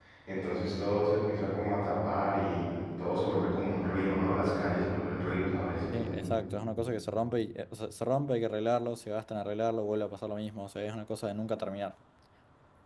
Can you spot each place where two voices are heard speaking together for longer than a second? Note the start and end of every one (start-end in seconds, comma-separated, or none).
none